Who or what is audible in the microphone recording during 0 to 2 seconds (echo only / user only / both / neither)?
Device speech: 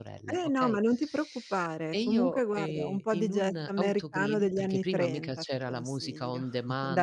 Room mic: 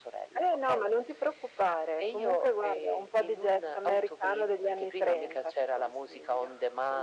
echo only